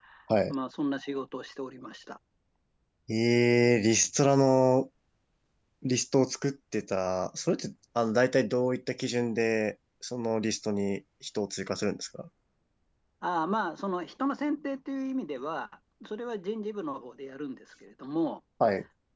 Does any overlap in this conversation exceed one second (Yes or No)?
No